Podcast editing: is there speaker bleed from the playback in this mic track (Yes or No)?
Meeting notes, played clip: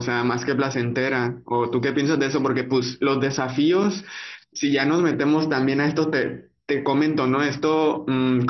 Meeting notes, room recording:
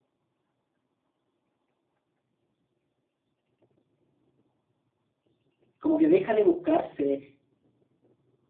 No